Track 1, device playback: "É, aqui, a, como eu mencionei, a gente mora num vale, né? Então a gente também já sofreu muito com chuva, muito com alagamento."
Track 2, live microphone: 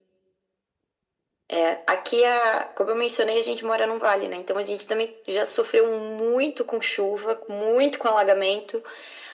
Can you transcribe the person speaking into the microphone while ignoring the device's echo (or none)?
none